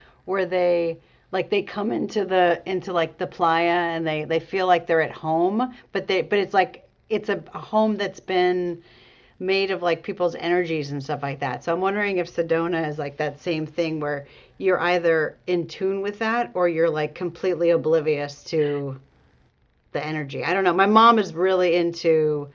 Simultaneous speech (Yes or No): No